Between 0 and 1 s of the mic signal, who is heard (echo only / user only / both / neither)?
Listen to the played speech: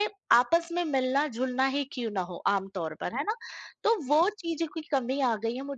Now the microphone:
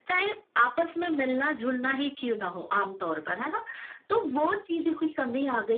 echo only